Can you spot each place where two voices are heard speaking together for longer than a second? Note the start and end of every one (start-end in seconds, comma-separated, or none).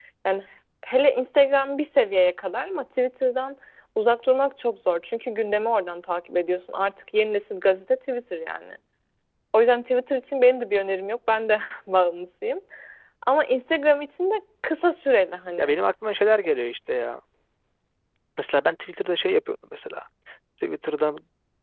none